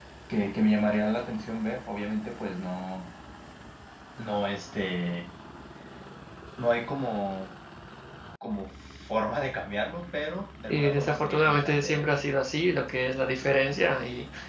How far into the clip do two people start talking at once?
10.7 s

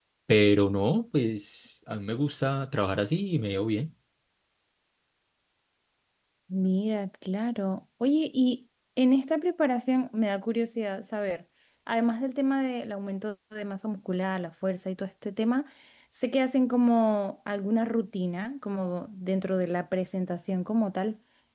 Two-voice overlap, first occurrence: none

